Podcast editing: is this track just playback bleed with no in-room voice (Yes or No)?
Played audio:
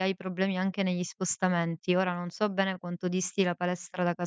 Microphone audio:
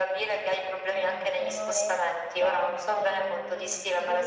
No